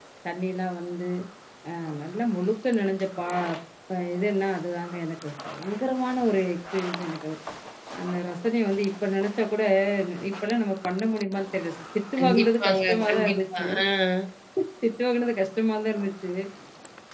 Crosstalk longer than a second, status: present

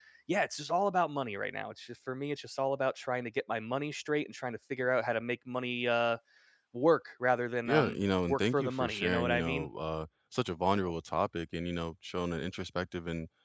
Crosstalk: present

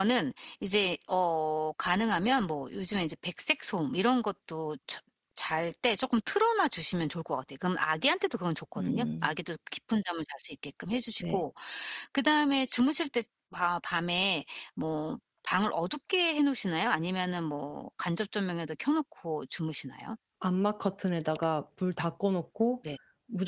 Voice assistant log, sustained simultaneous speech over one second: none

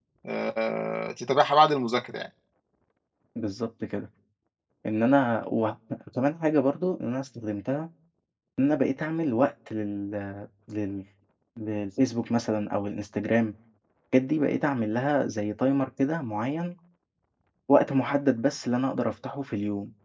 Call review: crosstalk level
none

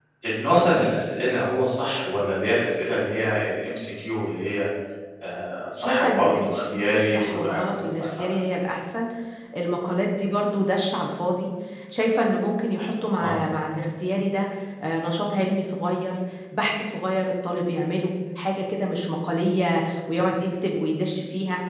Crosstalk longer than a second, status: present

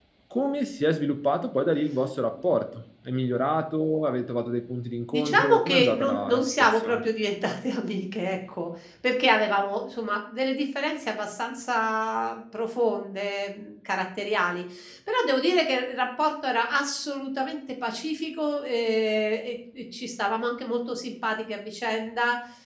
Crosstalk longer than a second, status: present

